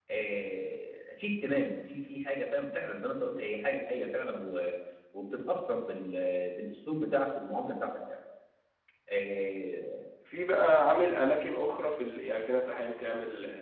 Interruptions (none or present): none